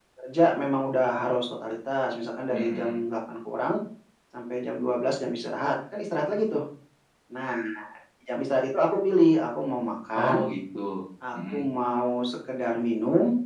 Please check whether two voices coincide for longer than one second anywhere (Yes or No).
No